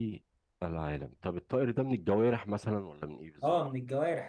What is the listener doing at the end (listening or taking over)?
taking over